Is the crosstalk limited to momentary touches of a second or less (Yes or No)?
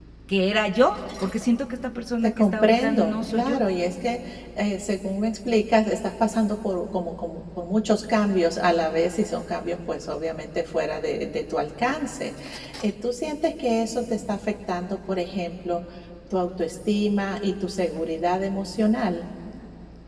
No